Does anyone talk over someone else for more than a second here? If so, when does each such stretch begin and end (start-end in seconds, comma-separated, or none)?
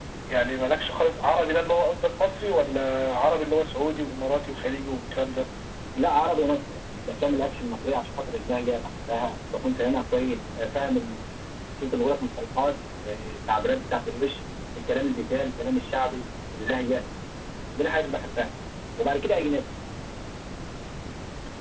none